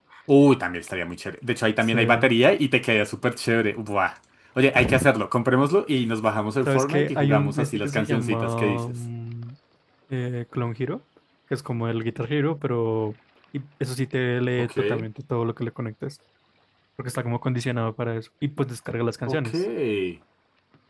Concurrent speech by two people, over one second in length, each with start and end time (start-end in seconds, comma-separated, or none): 6.6-8.8